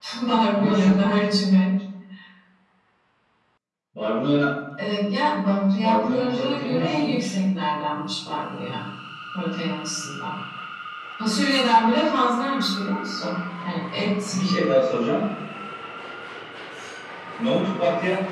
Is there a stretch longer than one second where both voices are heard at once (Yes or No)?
Yes